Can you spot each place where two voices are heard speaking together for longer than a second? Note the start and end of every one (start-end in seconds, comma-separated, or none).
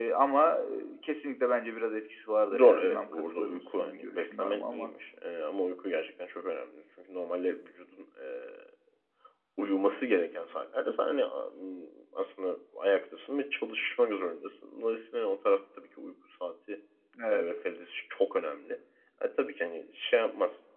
2.6-4.9